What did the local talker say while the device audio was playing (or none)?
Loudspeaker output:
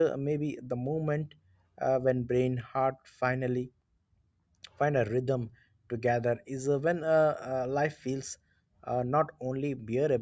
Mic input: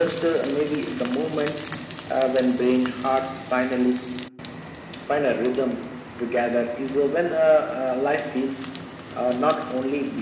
none